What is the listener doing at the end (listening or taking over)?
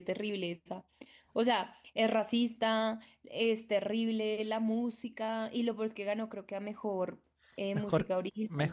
taking over